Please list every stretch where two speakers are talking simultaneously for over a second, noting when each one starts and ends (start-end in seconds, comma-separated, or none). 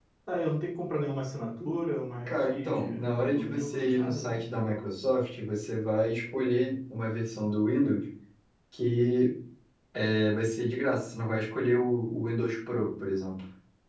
2.3-4.4